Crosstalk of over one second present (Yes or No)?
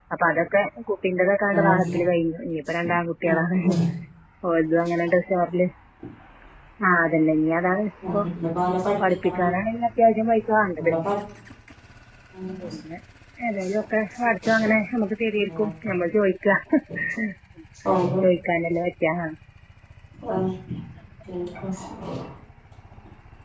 No